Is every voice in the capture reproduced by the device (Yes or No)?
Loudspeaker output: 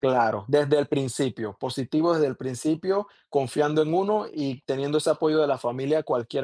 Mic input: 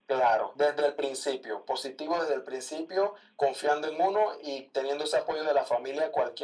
Yes